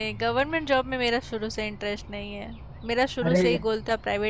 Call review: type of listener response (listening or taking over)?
listening